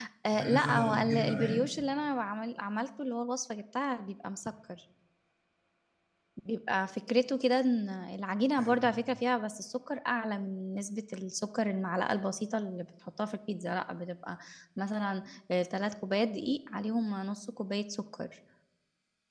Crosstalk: present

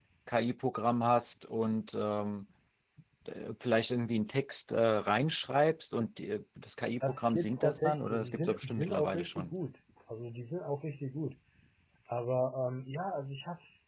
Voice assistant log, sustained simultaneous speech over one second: present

